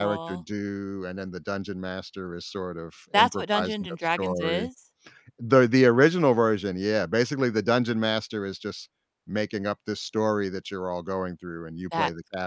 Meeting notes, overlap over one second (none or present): present